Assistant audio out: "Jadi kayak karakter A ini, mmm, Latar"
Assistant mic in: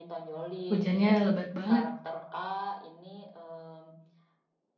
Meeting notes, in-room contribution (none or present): present